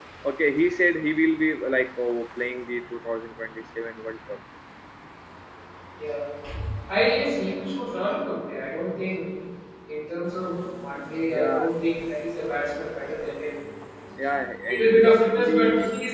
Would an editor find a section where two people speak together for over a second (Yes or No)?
Yes